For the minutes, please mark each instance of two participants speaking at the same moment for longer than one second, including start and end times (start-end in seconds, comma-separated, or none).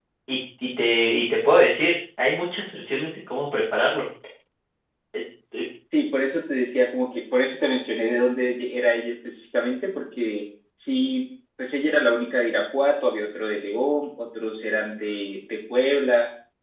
none